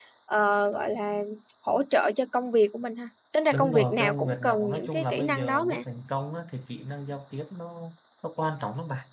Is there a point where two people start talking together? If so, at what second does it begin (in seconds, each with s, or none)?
3.5 s